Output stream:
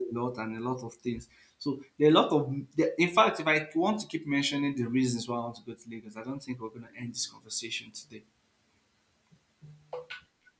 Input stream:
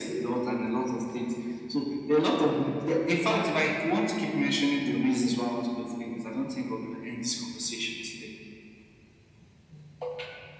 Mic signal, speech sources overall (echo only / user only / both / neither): echo only